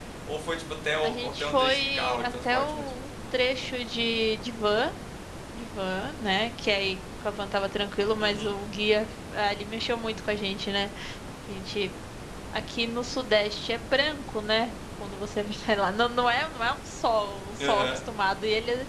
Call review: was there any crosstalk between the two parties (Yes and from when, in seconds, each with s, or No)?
Yes, from 1.0 s